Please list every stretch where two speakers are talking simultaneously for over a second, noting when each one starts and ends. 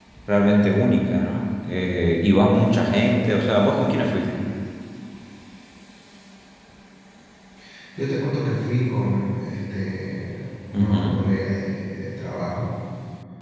none

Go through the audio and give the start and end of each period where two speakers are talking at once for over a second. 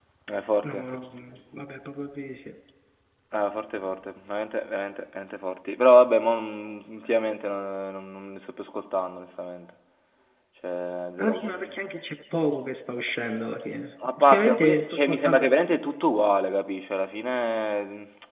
14.2-15.5

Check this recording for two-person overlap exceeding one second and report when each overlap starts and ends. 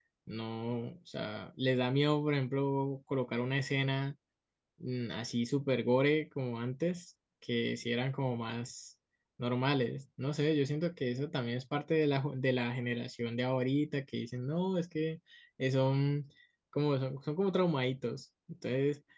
none

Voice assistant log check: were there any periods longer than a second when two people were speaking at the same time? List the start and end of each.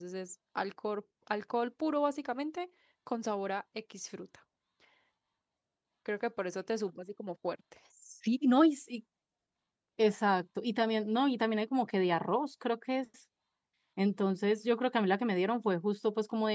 none

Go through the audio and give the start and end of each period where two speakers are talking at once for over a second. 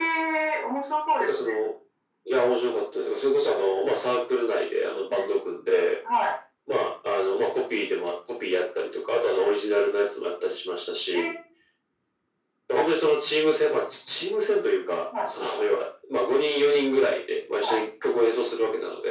none

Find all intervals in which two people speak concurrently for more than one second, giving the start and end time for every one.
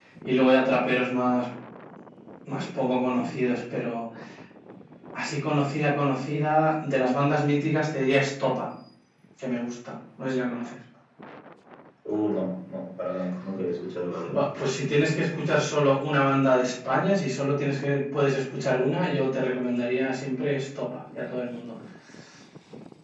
none

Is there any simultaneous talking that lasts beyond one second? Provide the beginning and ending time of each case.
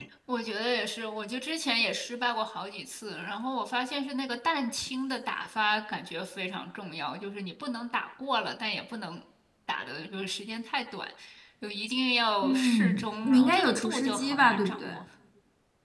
12.4-15.0

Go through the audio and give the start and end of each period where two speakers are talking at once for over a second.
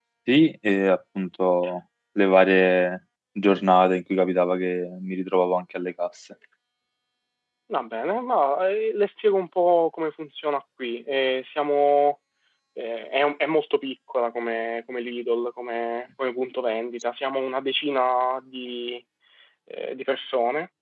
none

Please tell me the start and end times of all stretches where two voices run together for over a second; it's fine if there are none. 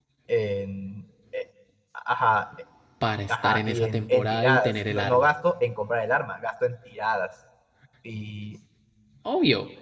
3.4-5.2

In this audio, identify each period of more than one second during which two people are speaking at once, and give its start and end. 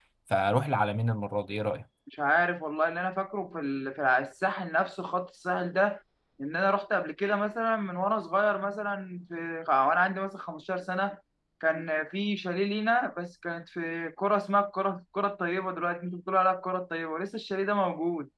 none

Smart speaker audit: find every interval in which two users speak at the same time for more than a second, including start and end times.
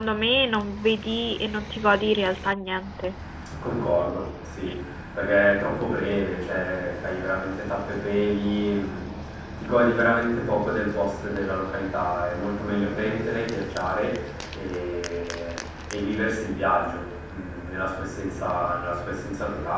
none

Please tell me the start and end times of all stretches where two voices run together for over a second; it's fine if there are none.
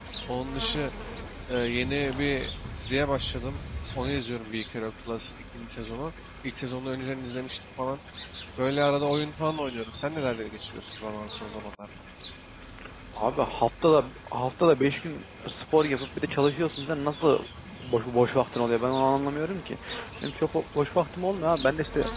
none

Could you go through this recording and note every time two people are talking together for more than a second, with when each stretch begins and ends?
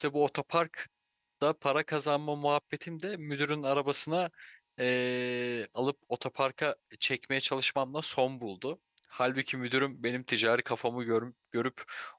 none

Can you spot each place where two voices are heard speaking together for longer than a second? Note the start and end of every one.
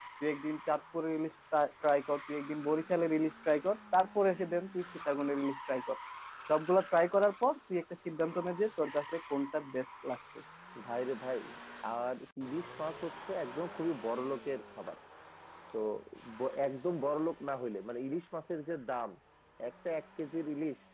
none

